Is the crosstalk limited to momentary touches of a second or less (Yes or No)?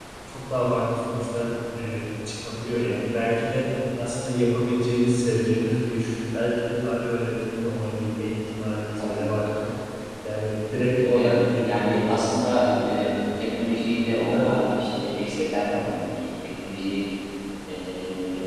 No